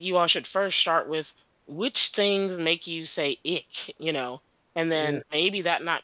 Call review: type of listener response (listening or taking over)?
listening